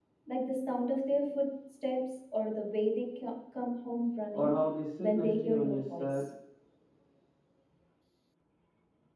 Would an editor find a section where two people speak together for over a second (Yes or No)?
Yes